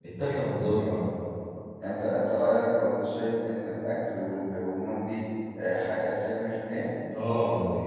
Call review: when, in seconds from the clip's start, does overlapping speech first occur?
none

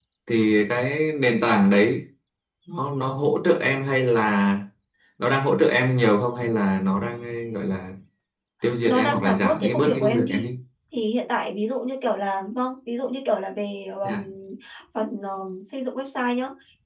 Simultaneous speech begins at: 8.8 s

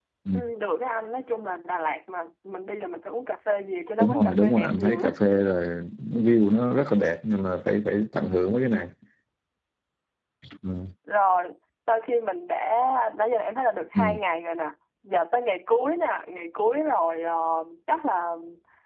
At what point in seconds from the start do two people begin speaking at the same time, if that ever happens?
4.0 s

